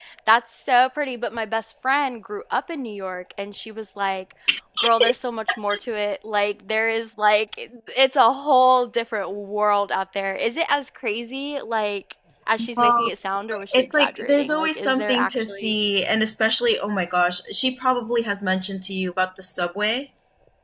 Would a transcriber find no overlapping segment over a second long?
No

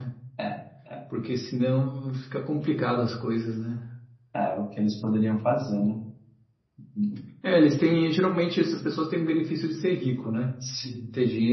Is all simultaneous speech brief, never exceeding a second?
Yes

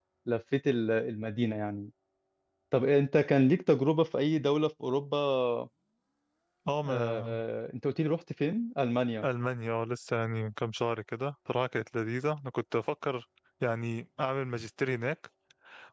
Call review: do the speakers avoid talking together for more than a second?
Yes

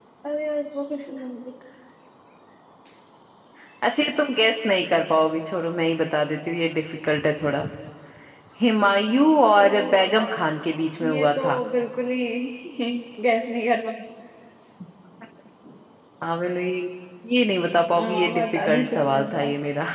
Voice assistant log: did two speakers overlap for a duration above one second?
Yes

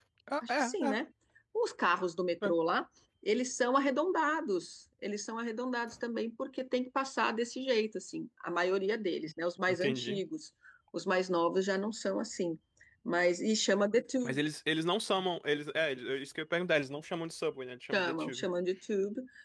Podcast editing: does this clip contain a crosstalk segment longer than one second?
No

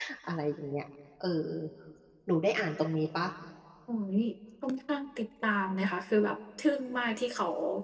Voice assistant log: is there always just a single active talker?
Yes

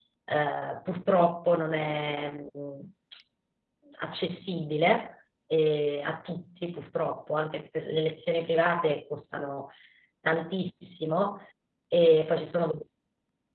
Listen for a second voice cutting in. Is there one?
No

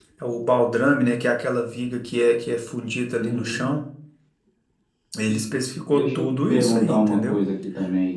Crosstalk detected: Yes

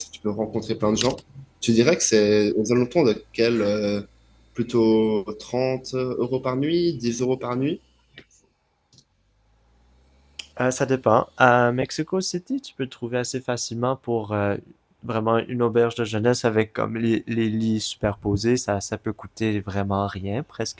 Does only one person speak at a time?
Yes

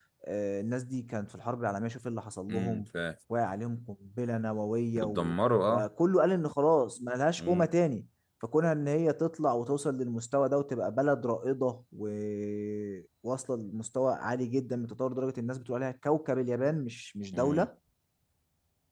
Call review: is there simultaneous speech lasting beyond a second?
No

